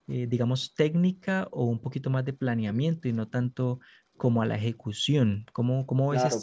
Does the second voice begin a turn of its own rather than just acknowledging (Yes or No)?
Yes